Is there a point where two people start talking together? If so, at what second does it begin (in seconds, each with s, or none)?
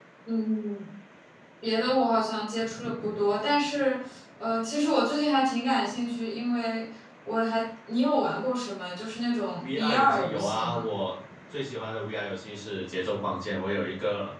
9.6 s